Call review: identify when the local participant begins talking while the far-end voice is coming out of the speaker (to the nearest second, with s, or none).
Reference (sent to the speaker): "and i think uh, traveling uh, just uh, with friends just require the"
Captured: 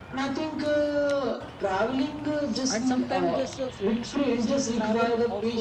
3 s